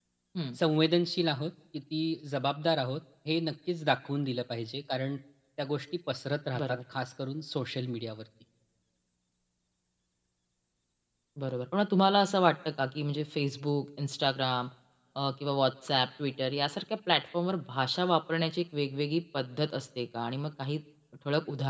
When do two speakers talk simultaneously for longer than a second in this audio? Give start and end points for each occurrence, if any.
none

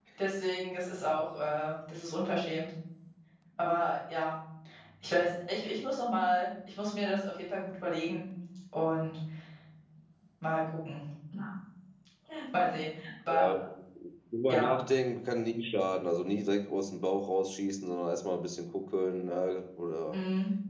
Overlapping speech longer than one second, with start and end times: none

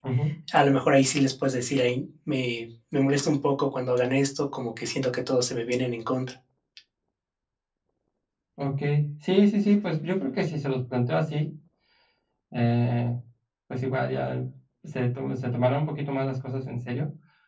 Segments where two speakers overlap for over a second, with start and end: none

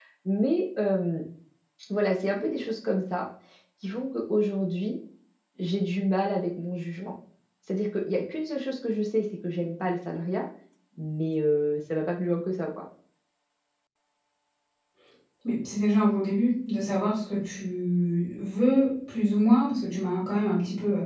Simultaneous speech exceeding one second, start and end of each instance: none

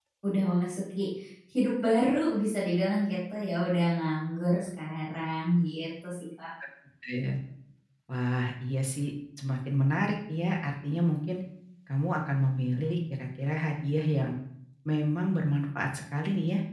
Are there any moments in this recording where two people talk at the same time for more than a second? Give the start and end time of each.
none

